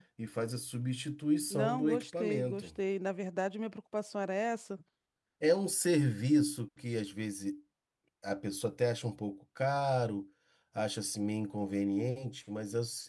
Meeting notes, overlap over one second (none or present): present